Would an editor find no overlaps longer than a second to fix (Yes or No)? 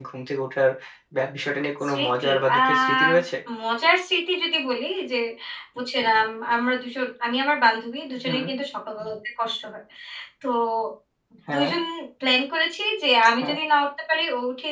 No